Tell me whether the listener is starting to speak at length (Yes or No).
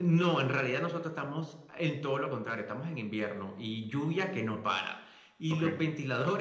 No